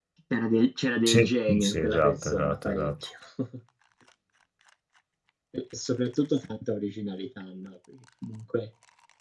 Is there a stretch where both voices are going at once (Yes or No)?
Yes